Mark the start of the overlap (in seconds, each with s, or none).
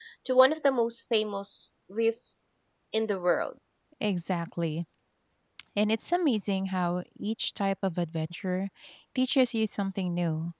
none